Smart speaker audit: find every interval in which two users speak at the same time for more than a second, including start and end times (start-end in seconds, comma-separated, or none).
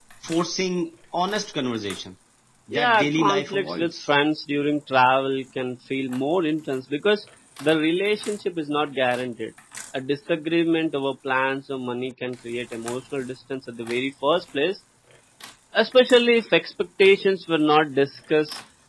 2.7-4.1